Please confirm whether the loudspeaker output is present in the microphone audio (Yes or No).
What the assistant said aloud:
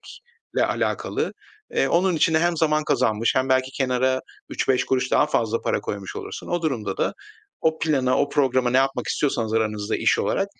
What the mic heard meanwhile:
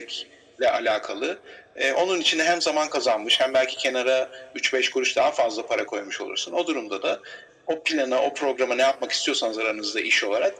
Yes